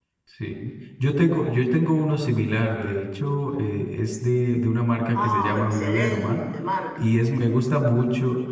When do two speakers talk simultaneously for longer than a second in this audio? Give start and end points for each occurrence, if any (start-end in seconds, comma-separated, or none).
5.2-6.4